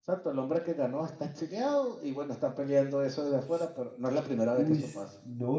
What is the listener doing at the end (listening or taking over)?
taking over